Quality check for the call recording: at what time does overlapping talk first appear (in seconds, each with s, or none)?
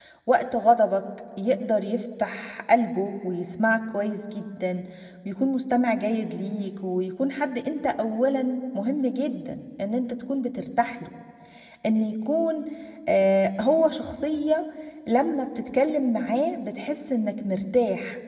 none